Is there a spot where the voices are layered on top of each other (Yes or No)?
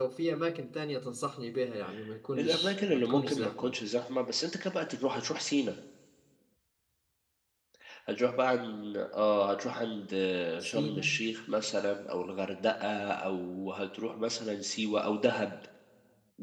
Yes